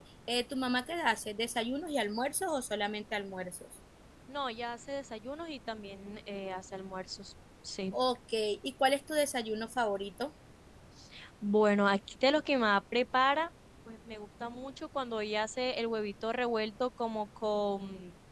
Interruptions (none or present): none